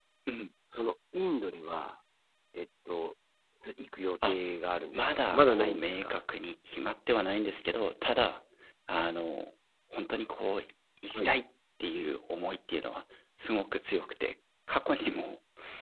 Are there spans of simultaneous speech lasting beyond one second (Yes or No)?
Yes